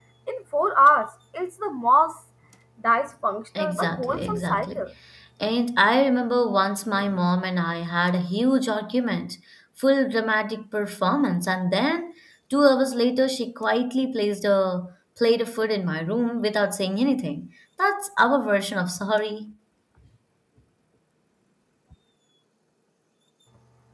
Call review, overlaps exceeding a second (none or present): present